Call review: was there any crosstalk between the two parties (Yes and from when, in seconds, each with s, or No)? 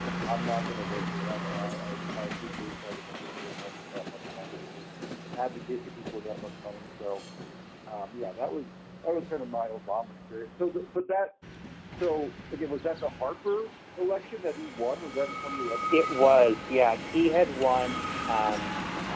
No